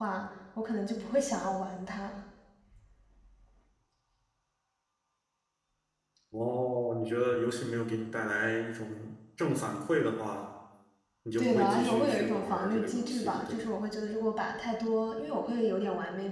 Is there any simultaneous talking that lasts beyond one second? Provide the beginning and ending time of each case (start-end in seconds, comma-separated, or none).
11.4-13.7